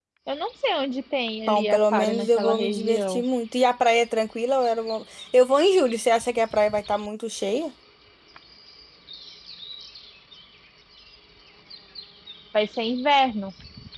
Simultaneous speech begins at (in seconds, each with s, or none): 1.5 s